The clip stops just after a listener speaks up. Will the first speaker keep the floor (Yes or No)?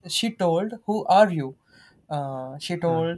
Yes